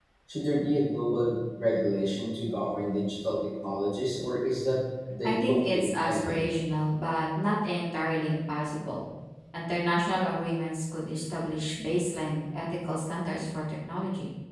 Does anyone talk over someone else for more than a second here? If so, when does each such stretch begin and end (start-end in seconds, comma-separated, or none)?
5.2-6.5